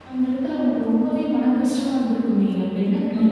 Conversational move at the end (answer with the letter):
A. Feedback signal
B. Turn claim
B